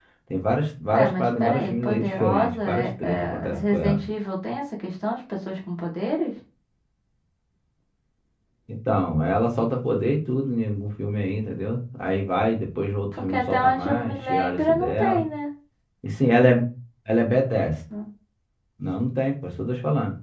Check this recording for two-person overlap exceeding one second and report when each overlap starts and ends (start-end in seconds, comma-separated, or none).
0.9-4.0, 13.2-15.2